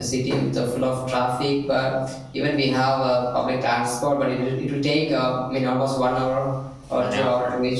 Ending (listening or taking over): listening